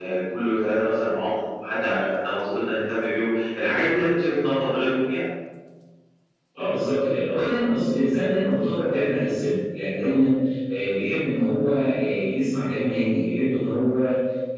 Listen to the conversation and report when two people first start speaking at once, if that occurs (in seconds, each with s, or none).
none